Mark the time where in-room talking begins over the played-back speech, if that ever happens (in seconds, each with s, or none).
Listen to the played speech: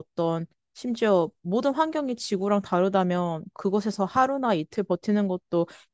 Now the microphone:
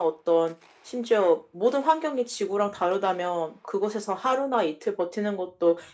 none